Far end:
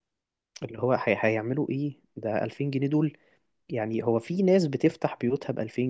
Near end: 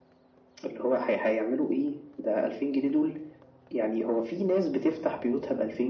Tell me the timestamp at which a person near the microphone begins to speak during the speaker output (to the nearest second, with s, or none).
none